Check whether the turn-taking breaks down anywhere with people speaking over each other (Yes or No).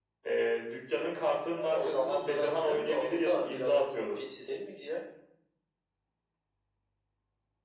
Yes